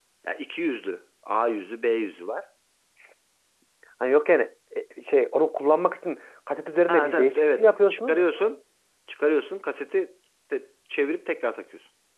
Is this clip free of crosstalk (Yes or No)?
No